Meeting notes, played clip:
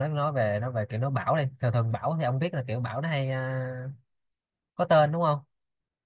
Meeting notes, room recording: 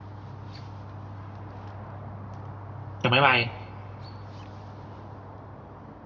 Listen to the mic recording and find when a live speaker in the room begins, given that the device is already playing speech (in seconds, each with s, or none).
3.0 s